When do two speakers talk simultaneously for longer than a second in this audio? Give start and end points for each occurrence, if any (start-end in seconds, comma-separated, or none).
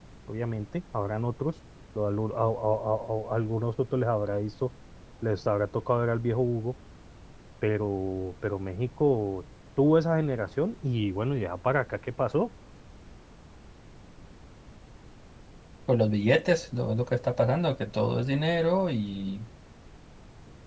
none